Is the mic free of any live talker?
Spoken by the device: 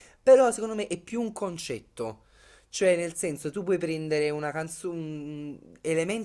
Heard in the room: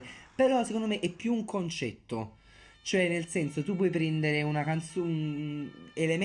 Yes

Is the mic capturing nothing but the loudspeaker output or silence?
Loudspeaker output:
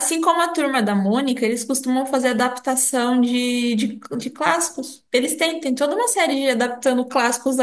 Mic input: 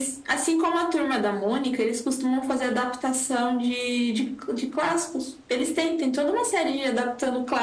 Yes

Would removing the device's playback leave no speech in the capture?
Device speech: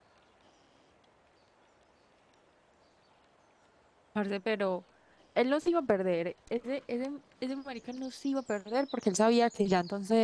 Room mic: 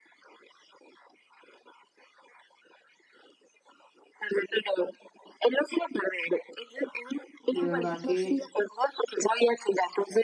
No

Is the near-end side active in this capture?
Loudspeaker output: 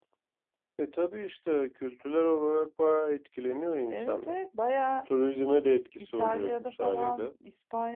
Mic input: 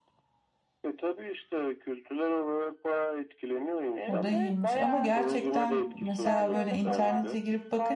Yes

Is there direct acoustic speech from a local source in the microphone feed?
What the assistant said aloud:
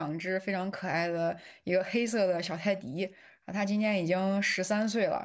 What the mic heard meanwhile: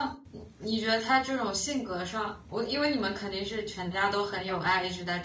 Yes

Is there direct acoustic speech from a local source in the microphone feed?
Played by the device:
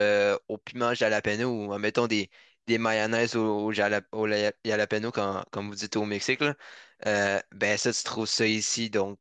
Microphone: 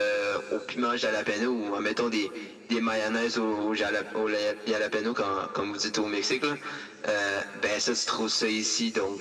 No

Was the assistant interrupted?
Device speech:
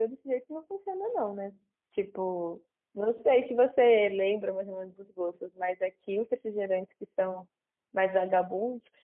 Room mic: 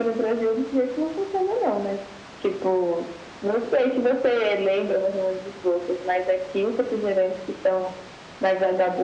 No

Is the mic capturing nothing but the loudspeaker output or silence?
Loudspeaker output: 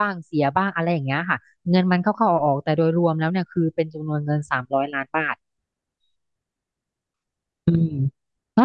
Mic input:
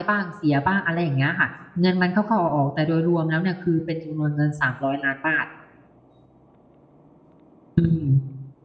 Yes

